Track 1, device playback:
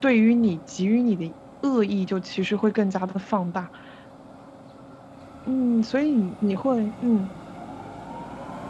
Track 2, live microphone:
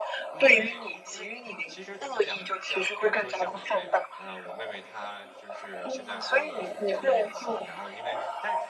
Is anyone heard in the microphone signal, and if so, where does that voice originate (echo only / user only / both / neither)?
both